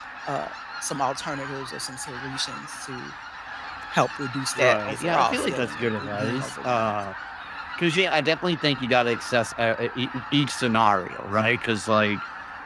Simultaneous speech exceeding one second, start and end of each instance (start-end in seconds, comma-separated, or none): 4.6-6.9